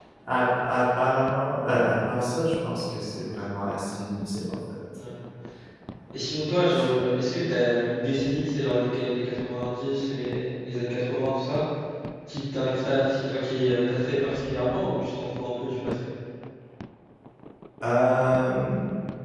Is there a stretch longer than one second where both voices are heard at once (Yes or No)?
No